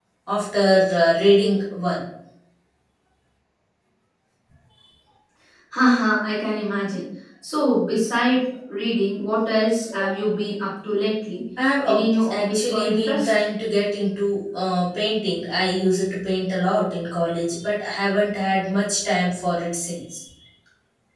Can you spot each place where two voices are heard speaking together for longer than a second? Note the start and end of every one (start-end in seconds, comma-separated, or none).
11.8-13.3